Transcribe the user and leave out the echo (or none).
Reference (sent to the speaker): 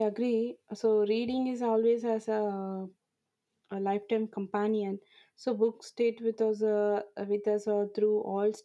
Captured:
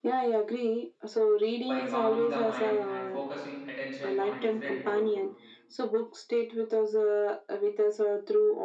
by calming the mind and focusing attention on a different world